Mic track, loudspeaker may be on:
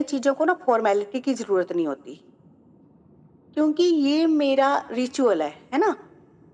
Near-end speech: none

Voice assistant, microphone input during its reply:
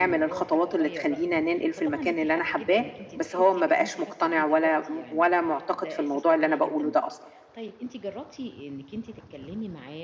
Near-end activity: present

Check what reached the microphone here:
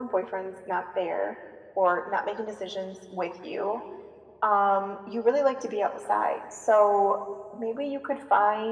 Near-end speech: none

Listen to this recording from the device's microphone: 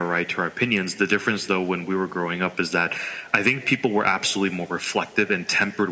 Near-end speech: none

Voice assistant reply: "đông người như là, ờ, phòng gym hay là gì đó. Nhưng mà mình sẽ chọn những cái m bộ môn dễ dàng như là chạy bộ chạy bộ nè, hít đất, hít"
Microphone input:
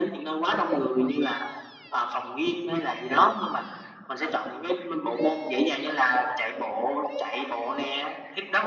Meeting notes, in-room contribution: none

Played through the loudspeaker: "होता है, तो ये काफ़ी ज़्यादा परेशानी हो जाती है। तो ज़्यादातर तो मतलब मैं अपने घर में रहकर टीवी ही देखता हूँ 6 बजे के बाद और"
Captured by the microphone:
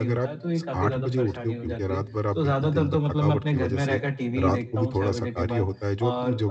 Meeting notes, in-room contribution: present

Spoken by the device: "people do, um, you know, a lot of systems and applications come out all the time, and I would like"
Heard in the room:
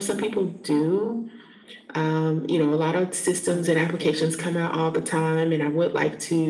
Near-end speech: present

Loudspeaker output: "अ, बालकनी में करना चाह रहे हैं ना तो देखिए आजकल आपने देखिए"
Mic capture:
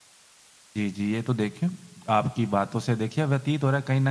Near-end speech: present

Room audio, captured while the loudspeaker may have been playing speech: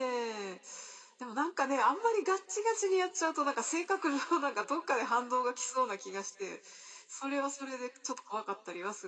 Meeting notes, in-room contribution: none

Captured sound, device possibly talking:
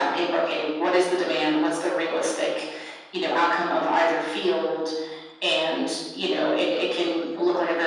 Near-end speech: present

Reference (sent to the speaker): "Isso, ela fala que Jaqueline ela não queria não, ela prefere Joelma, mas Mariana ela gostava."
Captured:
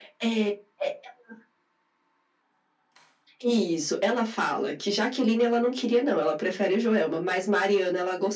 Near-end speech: none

